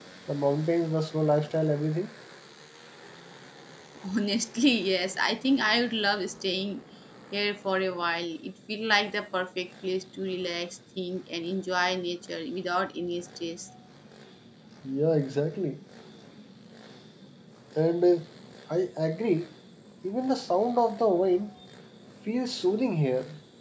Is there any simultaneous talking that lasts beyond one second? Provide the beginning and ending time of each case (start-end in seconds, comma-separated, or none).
none